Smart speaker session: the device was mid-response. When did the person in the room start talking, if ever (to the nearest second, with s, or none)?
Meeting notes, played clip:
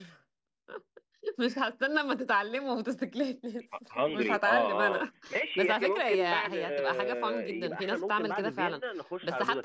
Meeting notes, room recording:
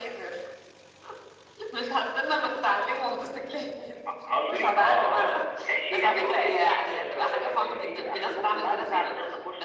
none